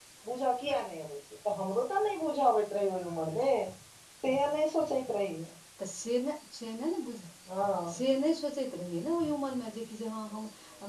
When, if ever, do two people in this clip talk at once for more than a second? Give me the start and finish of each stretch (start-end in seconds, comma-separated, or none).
none